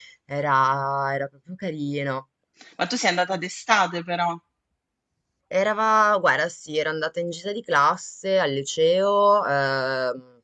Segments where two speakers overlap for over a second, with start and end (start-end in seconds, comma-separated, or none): none